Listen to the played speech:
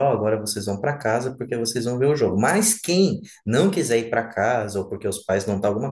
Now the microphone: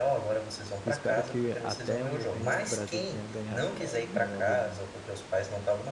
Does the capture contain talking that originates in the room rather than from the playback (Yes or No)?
Yes